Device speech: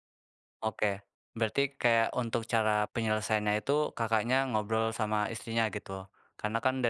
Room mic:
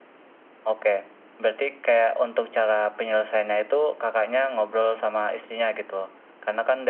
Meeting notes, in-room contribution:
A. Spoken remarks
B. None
B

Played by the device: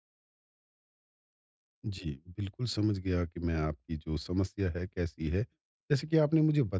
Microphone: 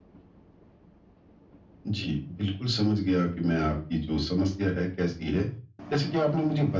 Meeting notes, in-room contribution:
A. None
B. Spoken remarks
A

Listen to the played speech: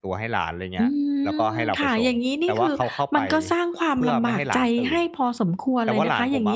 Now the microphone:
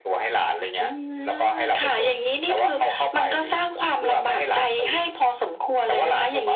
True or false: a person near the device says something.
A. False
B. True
A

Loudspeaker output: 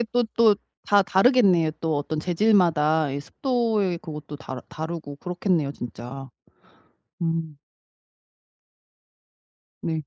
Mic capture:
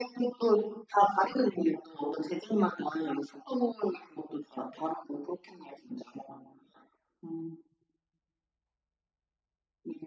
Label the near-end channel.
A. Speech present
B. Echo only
B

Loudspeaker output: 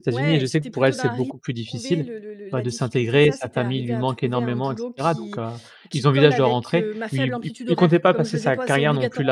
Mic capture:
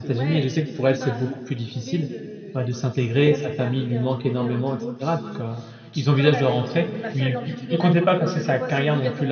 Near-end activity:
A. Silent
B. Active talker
A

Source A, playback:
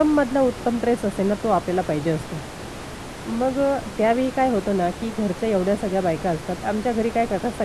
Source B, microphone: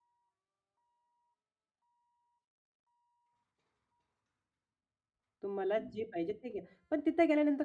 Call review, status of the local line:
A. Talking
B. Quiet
A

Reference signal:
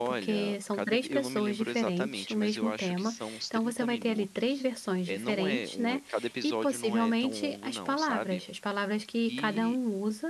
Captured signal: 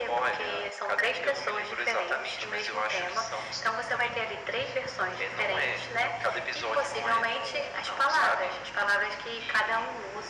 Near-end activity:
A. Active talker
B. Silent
B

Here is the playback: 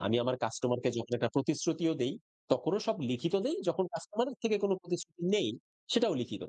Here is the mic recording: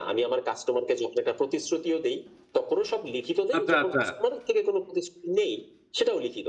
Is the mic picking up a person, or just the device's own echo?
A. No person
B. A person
B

